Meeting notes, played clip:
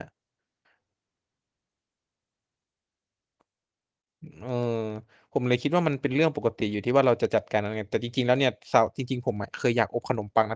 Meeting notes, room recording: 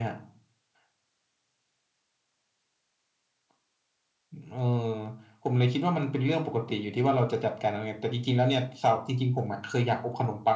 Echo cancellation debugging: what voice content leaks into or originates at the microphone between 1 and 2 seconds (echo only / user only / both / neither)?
neither